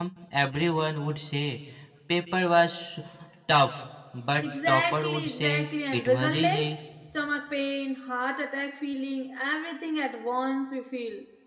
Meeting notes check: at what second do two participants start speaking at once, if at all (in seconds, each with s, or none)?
4.4 s